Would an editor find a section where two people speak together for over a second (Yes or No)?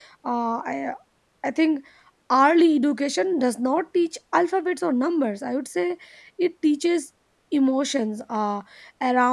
No